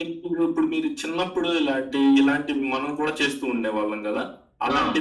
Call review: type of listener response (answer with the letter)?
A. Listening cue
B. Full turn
A